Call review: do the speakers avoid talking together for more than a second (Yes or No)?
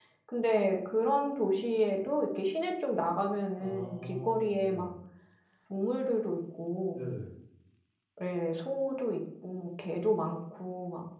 No